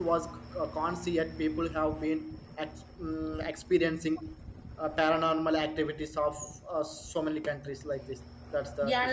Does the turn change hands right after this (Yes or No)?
Yes